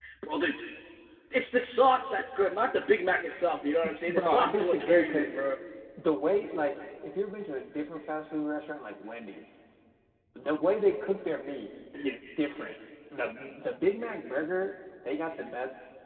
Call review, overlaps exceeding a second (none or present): present